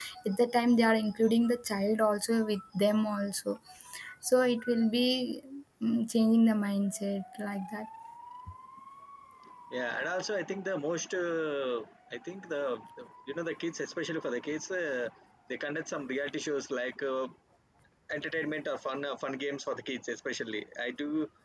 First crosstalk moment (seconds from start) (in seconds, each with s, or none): none